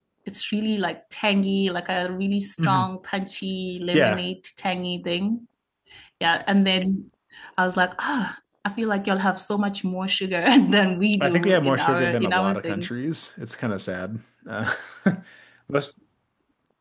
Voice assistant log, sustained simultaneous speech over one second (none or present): present